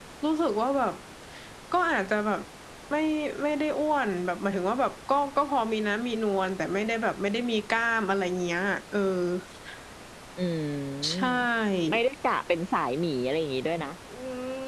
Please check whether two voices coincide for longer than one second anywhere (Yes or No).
No